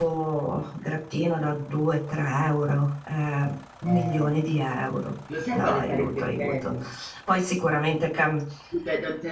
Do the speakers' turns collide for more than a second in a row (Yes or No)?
Yes